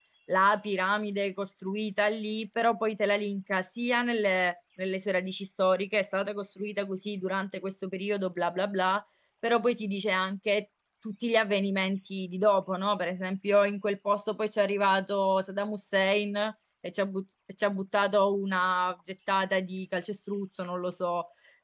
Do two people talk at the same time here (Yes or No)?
No